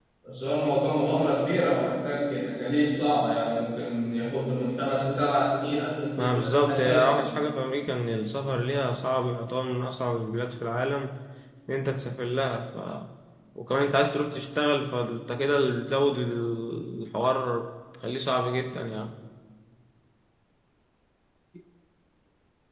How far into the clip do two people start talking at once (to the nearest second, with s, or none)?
6 s